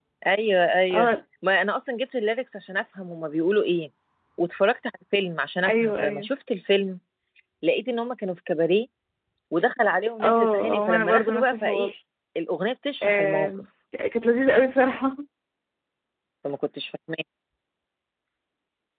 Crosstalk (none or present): present